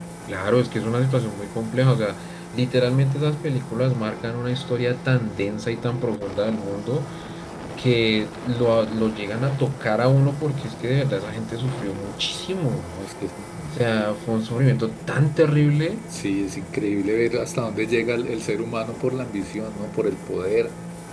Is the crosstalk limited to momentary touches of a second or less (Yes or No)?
Yes